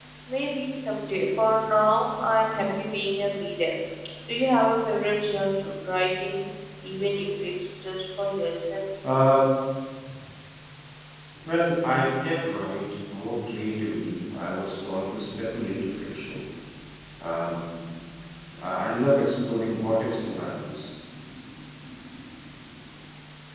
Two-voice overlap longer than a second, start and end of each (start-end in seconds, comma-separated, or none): none